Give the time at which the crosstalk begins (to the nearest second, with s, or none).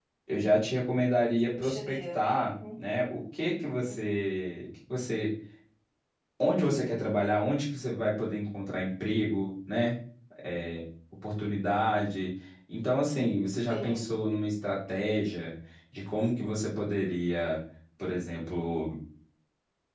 1 s